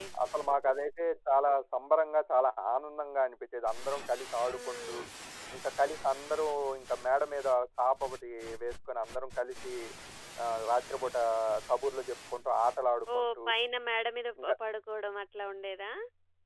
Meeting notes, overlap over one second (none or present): none